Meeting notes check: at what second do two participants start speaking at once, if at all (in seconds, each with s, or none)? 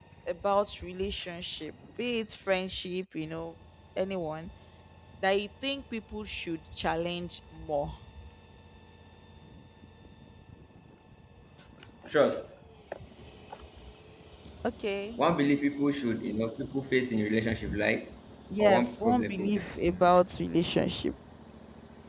18.6 s